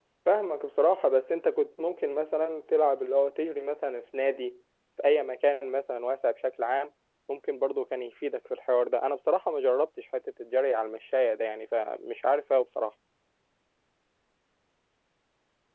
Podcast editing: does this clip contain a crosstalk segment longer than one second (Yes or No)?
No